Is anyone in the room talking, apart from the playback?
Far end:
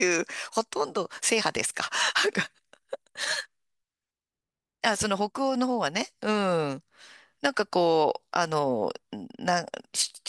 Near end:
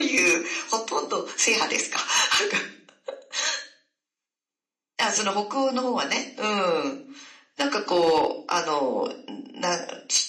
No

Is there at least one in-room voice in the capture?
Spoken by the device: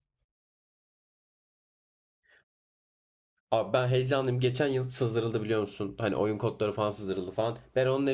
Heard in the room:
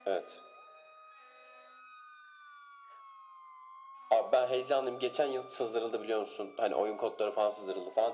No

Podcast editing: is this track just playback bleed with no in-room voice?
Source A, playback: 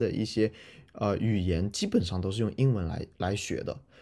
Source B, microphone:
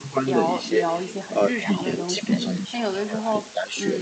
No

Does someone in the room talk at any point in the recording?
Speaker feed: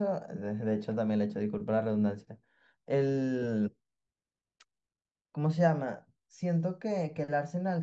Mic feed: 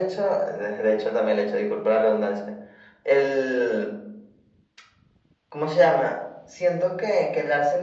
No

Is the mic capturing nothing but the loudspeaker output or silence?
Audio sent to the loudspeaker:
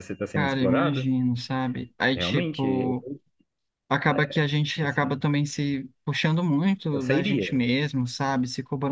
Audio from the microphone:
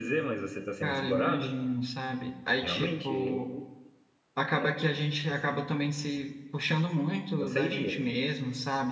Yes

